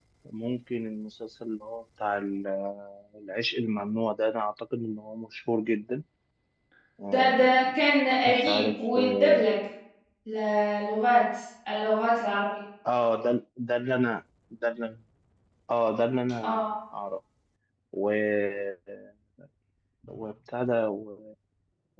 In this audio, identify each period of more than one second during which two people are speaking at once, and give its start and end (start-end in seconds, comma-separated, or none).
8.3-9.5